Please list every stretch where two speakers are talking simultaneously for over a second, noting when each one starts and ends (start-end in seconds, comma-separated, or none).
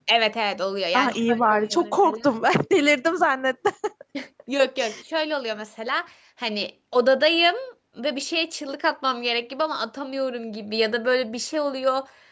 0.9-2.3